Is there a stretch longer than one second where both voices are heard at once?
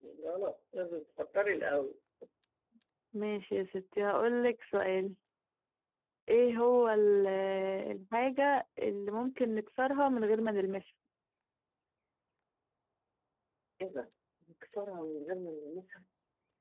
No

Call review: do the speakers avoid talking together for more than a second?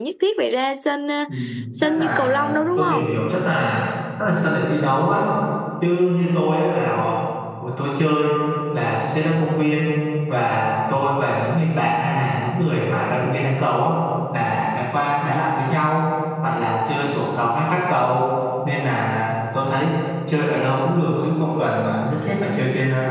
No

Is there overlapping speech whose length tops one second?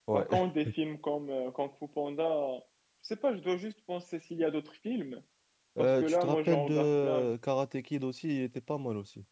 Yes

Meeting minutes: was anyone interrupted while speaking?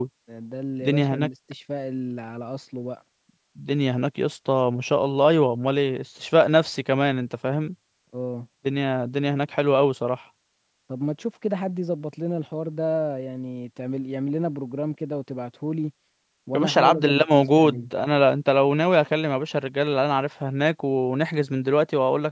Yes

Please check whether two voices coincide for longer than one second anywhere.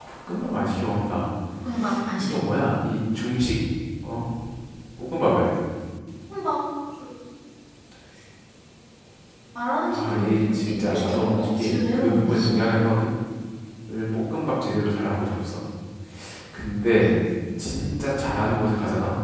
Yes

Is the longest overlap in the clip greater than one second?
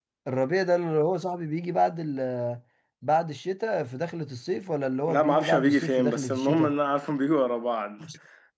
Yes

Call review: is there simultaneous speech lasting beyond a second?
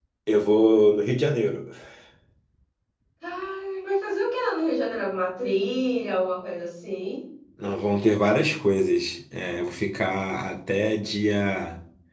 No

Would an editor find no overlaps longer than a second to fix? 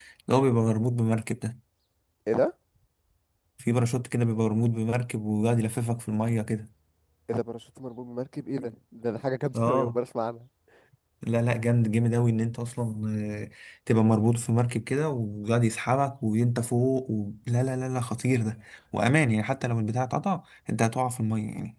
Yes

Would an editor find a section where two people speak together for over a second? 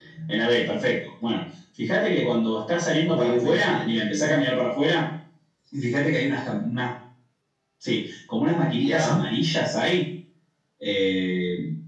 Yes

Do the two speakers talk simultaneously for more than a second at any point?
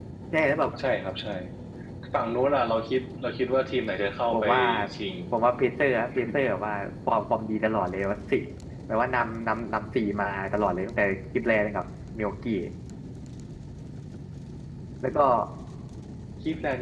No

